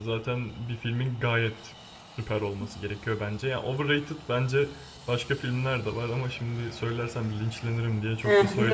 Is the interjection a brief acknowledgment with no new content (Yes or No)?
No